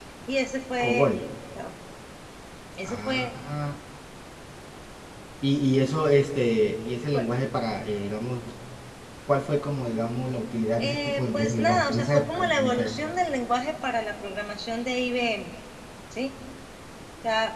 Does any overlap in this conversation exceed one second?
Yes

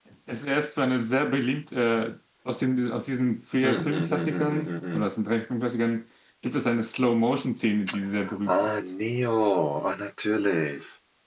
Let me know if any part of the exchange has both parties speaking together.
Yes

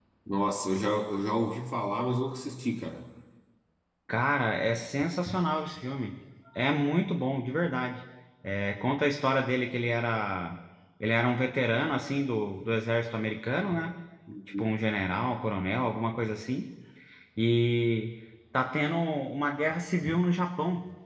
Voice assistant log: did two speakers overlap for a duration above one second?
No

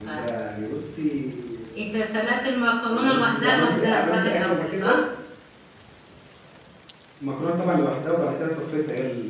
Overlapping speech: Yes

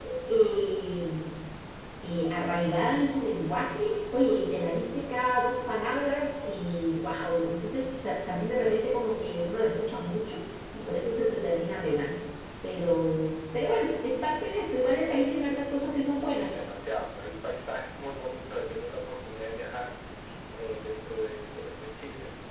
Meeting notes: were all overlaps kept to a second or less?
Yes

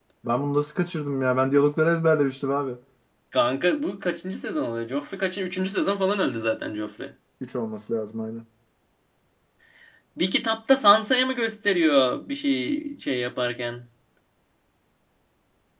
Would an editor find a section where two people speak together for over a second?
No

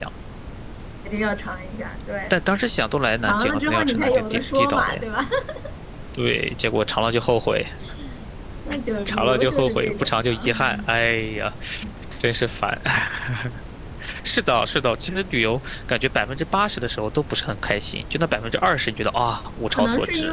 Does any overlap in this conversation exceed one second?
Yes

